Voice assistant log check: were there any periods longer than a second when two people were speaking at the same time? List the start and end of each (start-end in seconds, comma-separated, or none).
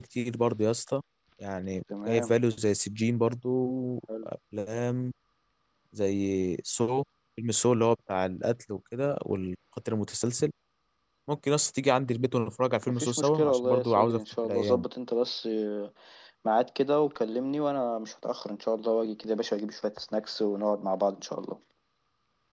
13.0-14.8